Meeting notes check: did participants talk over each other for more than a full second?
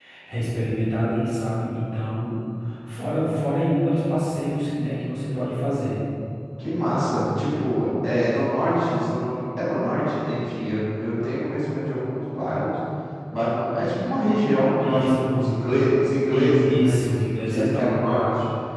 Yes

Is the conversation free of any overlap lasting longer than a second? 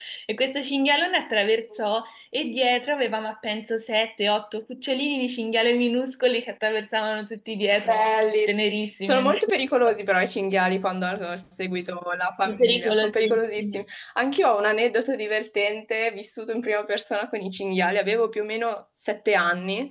No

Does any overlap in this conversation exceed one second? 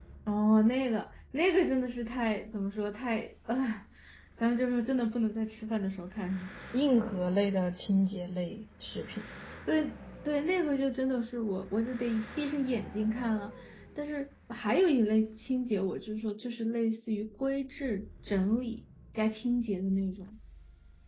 No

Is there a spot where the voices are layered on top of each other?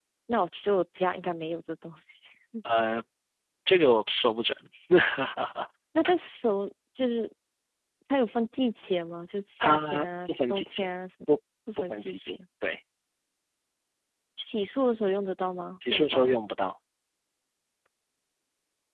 Yes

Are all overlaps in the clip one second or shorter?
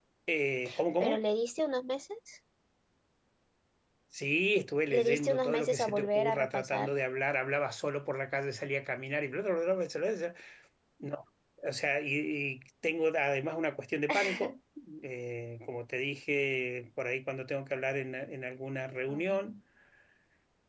No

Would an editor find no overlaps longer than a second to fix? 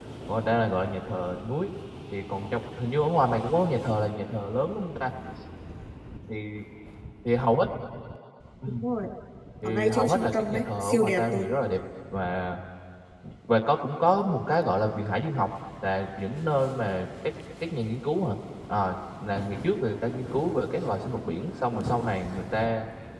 No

